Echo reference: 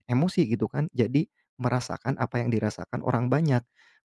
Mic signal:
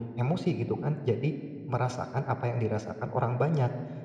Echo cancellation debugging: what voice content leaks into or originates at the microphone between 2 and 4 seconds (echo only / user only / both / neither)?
echo only